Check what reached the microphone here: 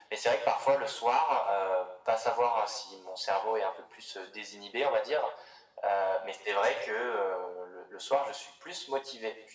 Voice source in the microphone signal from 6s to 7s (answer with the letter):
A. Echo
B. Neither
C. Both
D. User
A